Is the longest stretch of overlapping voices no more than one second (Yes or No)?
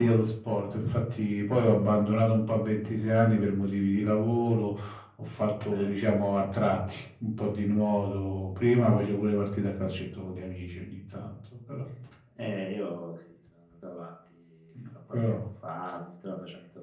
Yes